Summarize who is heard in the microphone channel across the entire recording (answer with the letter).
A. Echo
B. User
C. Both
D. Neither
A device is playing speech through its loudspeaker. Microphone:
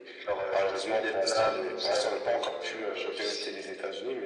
A